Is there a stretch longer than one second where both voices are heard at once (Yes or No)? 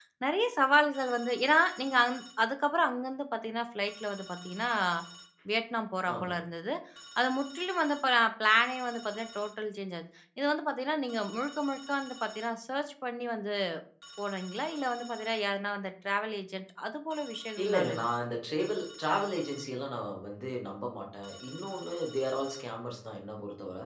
No